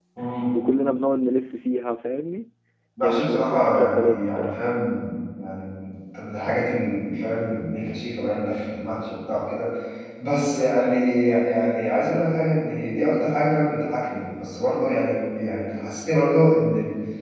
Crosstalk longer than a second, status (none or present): present